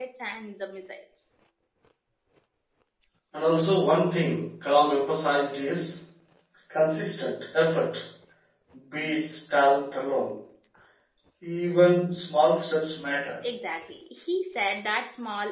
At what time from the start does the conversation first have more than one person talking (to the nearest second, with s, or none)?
none